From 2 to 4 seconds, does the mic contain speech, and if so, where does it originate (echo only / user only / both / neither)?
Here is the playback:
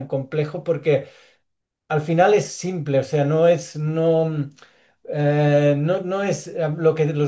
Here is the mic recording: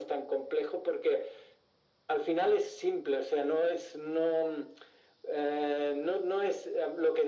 echo only